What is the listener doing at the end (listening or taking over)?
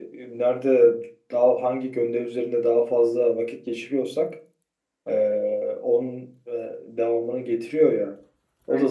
taking over